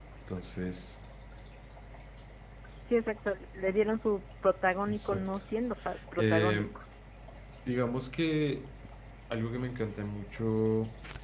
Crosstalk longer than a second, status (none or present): none